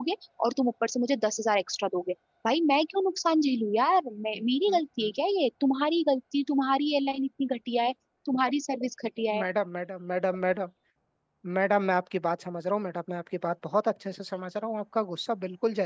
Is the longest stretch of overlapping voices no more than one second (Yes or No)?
Yes